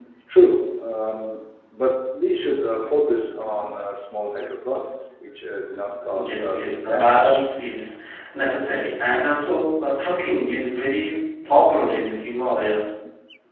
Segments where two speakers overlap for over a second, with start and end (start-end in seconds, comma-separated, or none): 6.1-7.5